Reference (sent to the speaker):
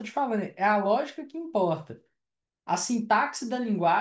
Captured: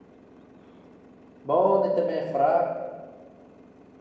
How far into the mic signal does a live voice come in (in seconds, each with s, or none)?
1.4 s